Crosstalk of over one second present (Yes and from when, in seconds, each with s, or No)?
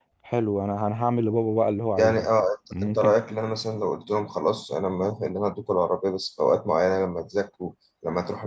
No